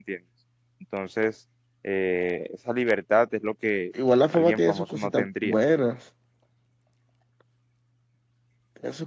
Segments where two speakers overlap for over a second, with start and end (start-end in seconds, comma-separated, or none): 4.3-5.6